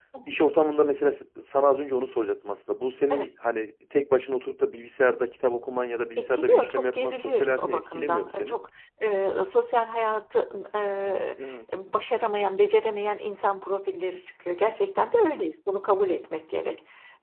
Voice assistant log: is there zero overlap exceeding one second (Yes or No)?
No